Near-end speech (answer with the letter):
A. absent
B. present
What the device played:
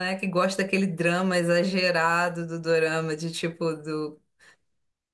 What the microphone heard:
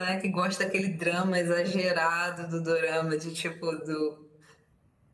A